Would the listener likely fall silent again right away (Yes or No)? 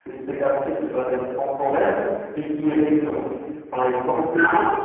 Yes